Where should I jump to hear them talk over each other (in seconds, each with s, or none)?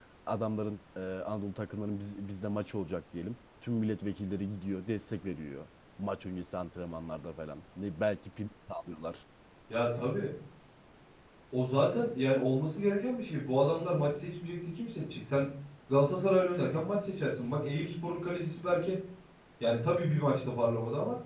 none